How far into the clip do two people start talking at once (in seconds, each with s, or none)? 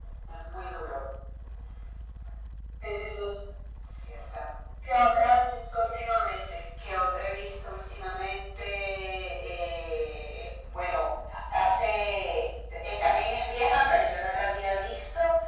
none